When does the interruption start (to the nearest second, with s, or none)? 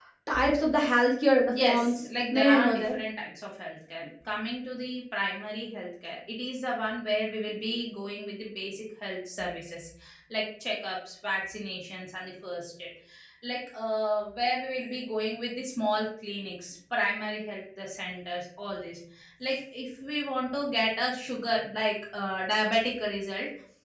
1 s